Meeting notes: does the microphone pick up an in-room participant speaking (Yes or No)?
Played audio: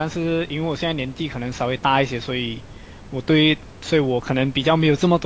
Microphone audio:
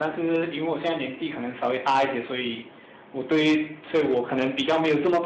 No